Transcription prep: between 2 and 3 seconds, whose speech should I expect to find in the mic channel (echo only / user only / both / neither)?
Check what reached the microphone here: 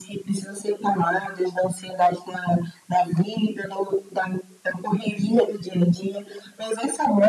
echo only